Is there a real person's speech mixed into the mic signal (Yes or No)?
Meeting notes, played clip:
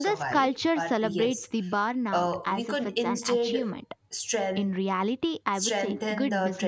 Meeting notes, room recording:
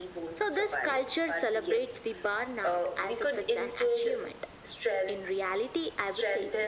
No